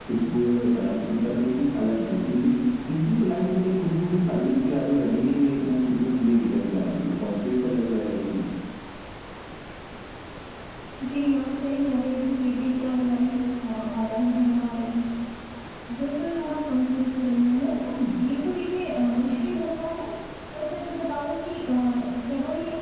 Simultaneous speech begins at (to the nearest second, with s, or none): none